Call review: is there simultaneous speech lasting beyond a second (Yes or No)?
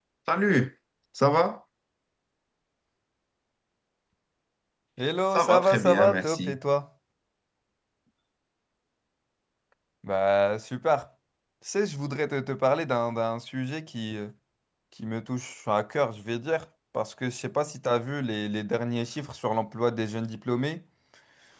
Yes